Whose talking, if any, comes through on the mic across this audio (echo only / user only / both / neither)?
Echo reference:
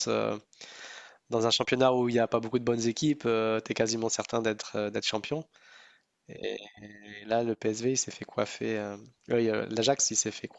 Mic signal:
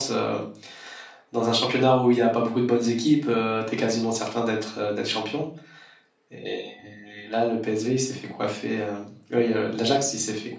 echo only